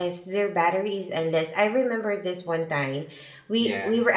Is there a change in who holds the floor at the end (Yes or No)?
No